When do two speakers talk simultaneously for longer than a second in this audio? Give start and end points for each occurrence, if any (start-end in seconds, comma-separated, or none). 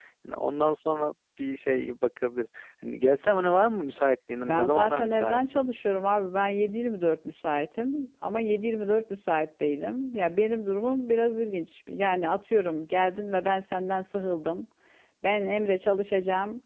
4.4-5.6